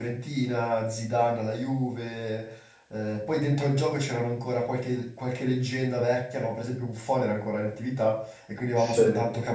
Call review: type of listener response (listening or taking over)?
listening